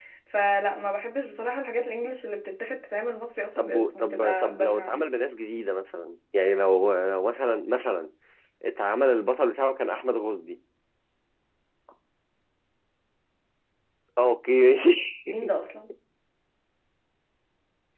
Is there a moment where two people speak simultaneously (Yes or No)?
Yes